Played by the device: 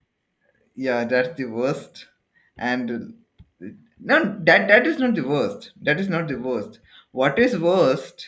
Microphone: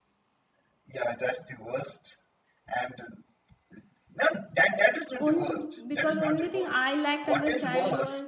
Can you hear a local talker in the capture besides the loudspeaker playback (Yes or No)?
Yes